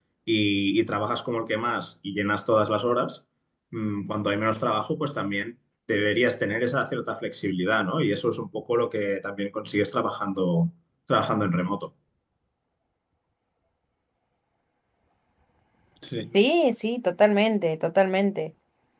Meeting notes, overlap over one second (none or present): none